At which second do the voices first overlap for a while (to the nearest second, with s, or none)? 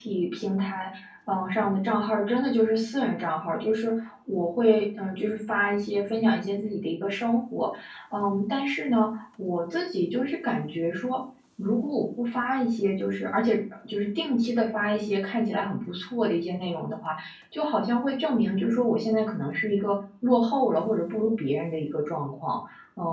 none